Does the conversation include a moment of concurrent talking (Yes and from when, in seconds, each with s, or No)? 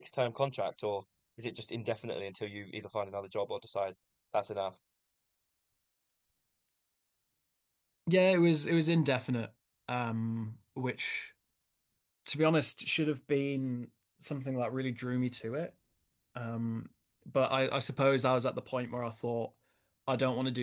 No